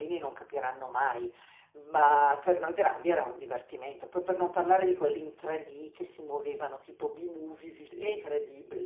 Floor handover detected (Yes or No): No